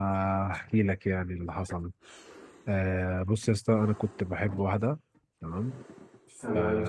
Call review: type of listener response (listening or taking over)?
listening